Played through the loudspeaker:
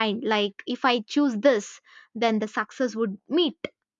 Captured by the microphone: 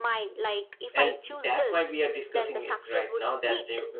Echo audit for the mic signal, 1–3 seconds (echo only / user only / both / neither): both